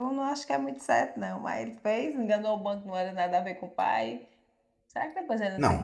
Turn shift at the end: Yes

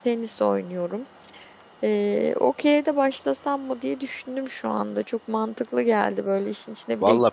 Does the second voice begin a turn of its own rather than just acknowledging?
Yes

